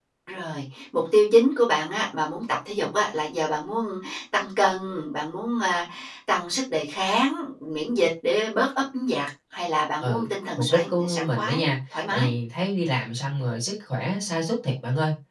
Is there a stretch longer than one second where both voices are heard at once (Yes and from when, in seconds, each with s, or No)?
Yes, from 10.0 s